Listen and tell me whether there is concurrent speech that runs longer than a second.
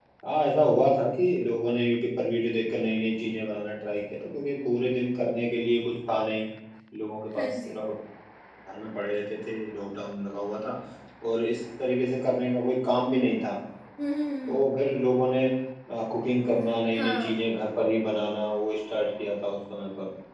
No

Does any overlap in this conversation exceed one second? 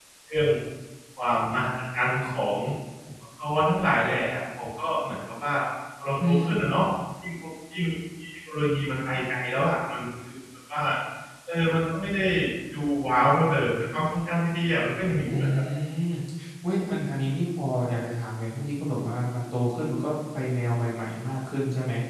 No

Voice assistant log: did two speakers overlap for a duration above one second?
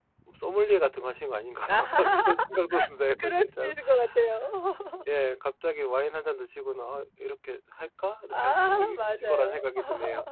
Yes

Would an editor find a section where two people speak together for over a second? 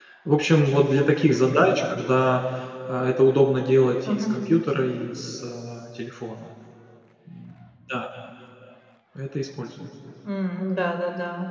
No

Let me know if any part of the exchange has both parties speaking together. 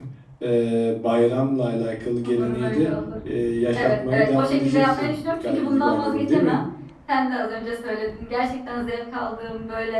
Yes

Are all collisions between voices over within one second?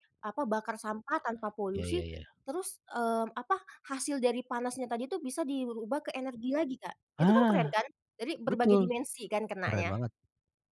Yes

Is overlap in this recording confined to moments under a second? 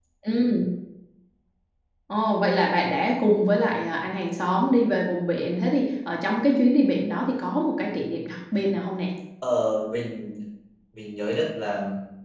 Yes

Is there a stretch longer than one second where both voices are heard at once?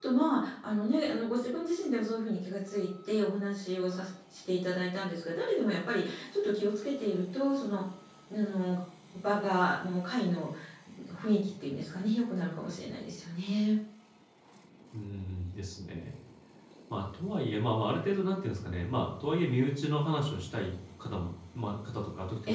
No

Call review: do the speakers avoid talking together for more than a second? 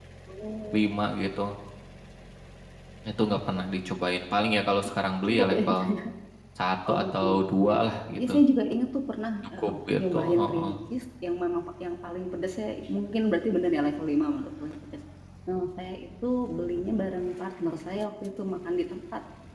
No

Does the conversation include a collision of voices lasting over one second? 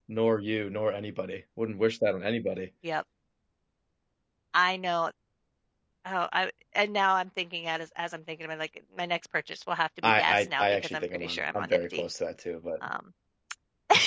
Yes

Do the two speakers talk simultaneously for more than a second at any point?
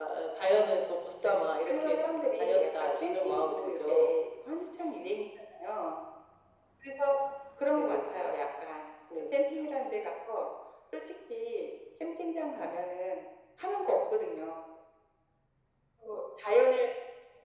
Yes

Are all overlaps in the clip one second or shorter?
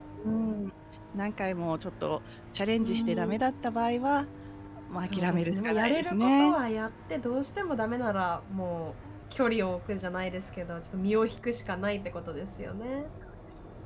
No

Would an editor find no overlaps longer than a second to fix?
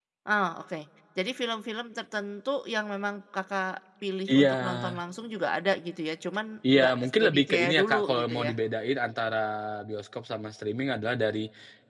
No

